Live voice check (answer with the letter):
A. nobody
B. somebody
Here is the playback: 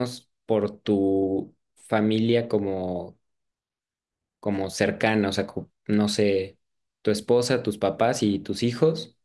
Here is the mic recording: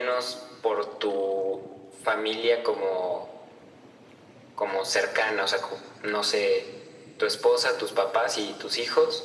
A